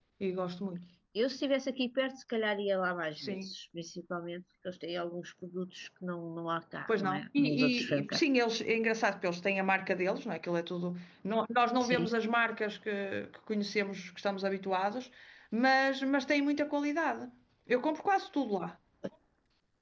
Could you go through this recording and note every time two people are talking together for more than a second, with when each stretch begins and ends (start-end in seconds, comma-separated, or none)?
6.9-8.2